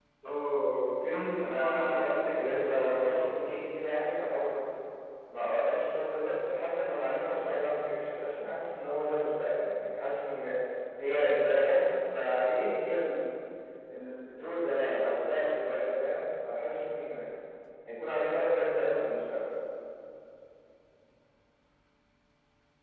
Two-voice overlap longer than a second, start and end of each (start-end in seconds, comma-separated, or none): 1.4-3.4